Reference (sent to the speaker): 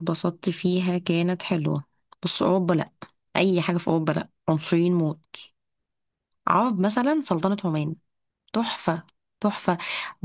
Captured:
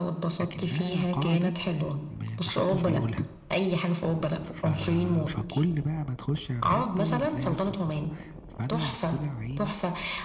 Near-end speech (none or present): present